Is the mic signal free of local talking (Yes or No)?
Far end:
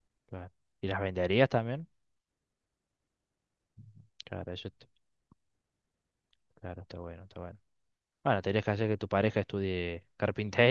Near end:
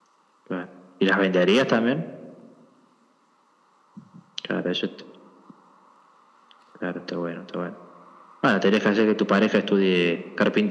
Yes